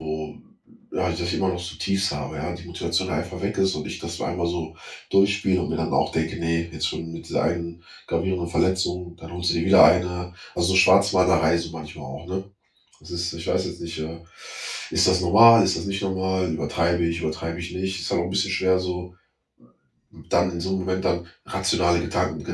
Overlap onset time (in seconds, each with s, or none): none